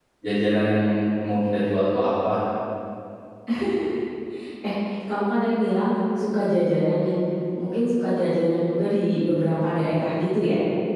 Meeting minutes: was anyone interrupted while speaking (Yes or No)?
No